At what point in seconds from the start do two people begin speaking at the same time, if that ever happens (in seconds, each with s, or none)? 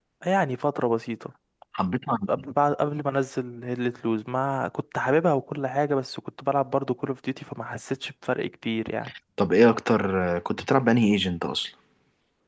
none